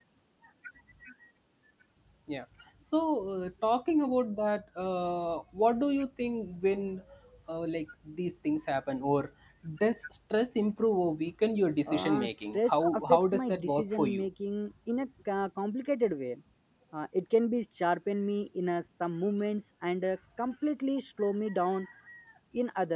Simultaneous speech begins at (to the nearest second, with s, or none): 12 s